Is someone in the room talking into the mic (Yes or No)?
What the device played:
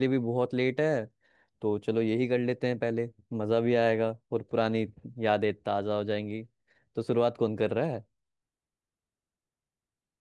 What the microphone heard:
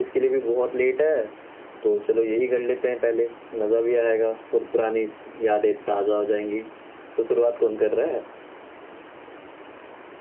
No